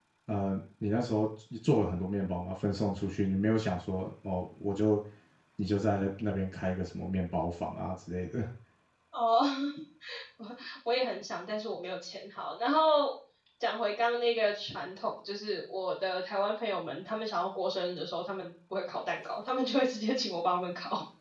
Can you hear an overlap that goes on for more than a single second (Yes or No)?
No